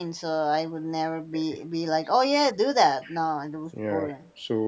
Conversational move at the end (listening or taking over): taking over